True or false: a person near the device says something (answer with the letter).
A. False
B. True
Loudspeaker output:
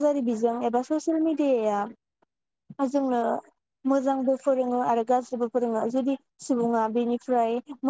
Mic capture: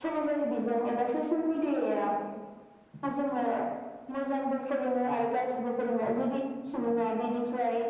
A